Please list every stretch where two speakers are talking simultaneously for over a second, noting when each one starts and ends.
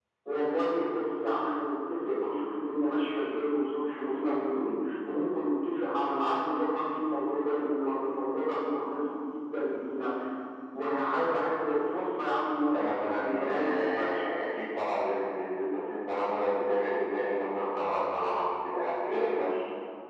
12.6-14.2

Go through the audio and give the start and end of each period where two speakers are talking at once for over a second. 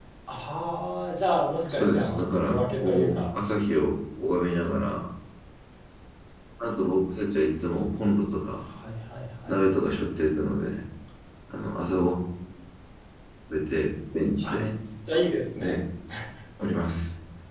1.7-3.2

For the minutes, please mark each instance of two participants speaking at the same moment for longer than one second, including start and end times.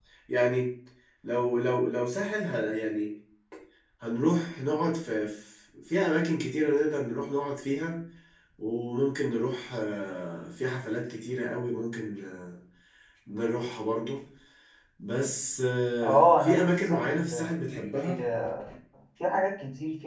16.0-18.1

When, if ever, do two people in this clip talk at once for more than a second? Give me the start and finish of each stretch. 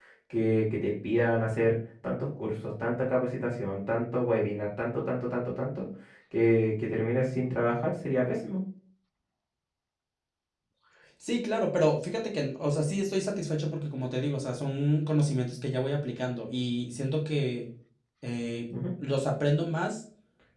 none

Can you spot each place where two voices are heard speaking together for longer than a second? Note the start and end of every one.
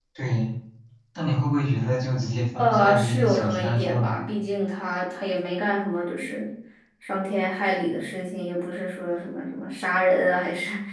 2.6-4.2

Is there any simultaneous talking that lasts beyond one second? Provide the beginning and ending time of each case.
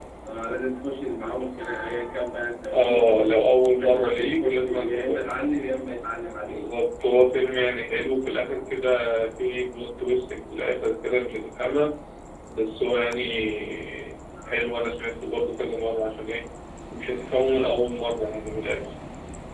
2.7-5.4

